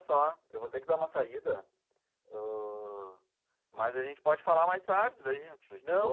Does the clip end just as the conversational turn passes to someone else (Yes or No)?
Yes